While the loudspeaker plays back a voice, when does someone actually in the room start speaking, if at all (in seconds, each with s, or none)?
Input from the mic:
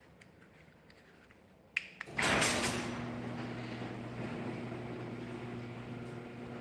none